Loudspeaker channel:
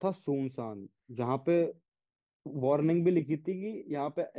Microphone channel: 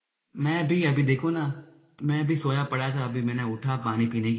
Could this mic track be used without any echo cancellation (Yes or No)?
Yes